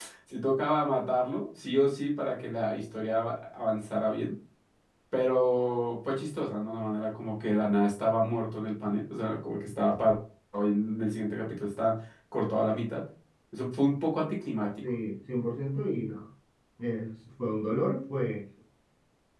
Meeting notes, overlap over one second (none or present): none